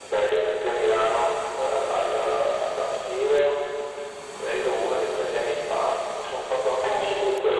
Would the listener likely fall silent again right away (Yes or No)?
Yes